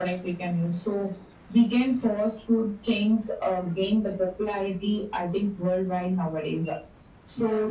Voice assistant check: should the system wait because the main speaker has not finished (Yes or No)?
Yes